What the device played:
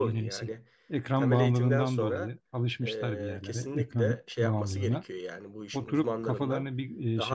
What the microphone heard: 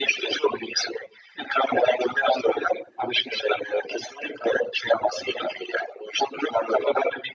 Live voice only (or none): none